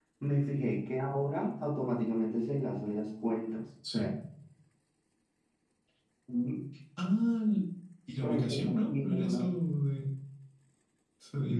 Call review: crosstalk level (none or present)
present